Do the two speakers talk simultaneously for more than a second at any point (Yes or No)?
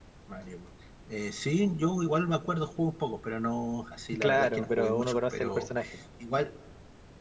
Yes